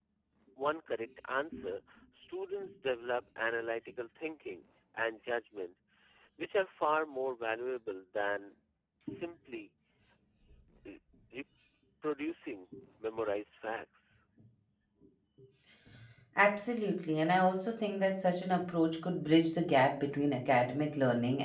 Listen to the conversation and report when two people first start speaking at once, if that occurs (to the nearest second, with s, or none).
none